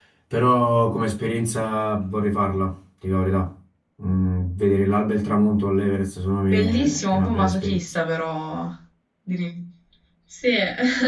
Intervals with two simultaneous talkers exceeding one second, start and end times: 6.5-7.8

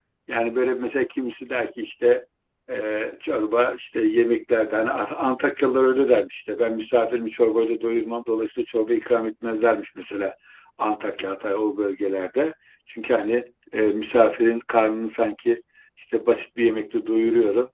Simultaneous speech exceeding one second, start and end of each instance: none

